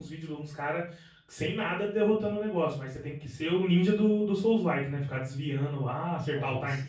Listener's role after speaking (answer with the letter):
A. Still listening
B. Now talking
A